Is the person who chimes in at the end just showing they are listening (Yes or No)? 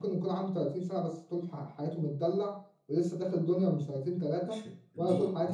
No